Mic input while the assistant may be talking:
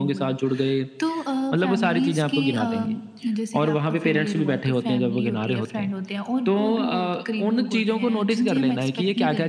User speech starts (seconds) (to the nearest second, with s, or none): none